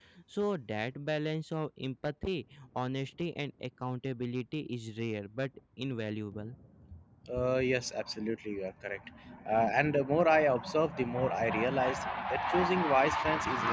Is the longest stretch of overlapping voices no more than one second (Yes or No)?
Yes